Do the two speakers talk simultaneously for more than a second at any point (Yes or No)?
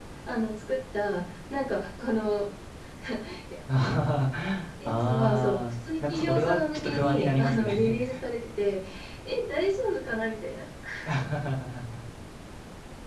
Yes